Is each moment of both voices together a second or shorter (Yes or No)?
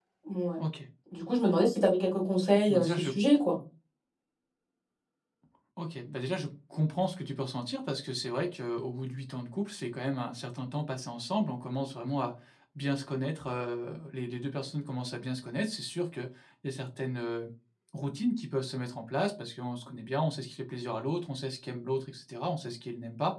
Yes